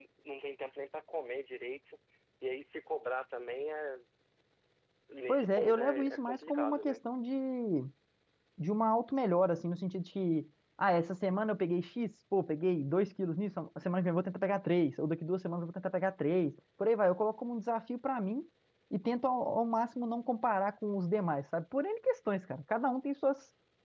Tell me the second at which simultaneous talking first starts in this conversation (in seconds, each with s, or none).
5.3 s